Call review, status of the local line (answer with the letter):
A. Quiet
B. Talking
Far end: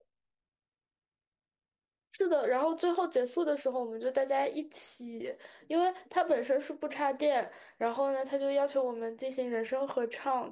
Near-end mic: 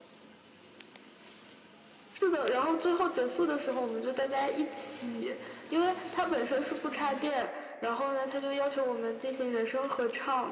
A